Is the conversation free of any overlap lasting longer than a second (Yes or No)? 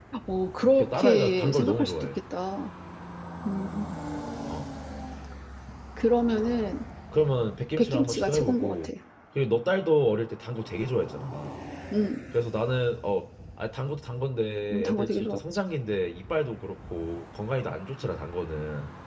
No